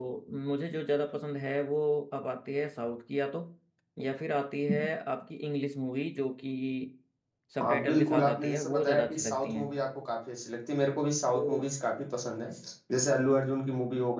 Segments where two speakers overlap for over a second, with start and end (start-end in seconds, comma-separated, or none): 7.6-9.7